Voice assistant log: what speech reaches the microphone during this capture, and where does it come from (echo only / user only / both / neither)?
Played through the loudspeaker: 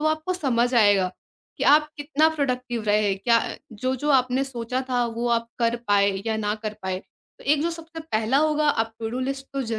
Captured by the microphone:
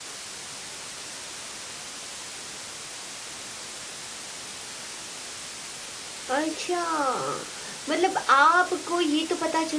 user only